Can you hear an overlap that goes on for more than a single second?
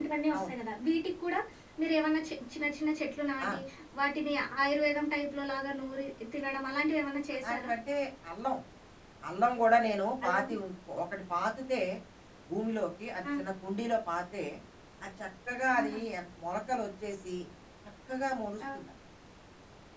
No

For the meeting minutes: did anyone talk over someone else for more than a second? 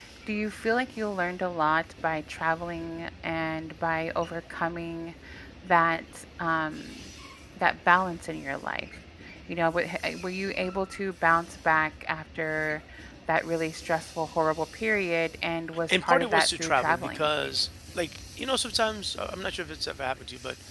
Yes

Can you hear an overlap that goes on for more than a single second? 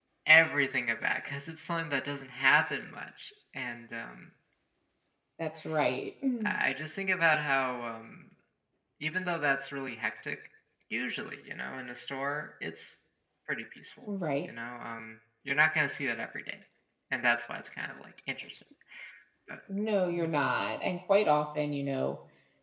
No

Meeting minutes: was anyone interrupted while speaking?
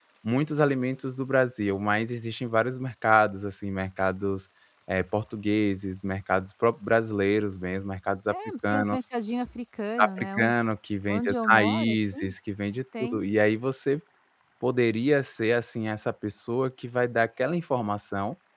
Yes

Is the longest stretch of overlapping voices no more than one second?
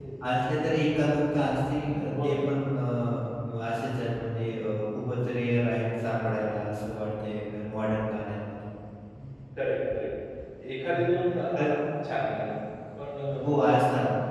Yes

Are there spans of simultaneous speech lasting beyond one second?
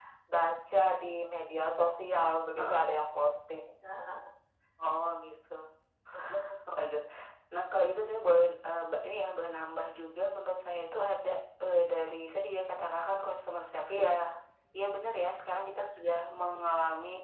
No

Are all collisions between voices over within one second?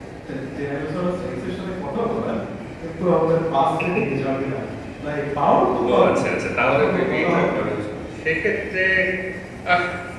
No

